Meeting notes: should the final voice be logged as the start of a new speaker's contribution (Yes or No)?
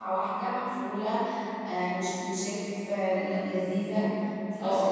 Yes